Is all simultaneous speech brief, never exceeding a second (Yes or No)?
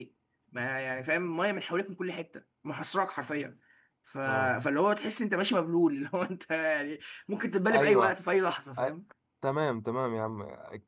Yes